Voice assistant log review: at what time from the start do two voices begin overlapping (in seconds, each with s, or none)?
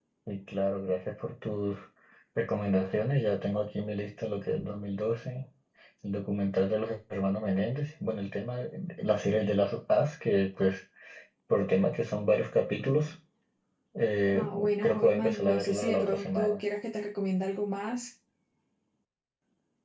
14.3 s